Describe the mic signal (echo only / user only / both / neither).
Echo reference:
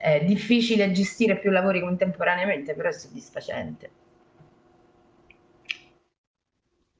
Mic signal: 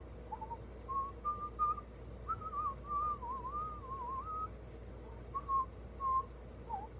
neither